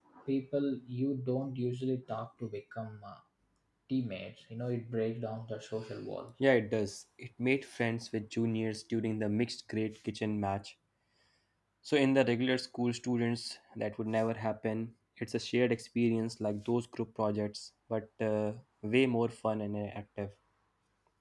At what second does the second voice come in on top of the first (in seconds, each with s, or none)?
none